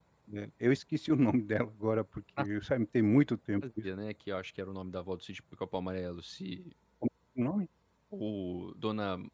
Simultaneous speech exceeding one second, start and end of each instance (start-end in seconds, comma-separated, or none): none